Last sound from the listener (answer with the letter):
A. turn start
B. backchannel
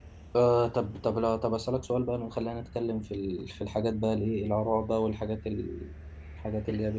B